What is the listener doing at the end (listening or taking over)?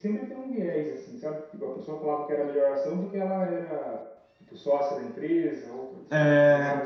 taking over